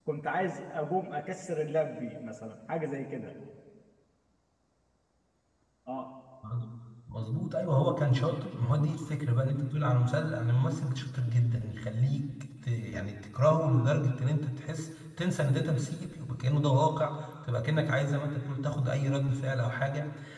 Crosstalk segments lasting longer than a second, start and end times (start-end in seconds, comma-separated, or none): none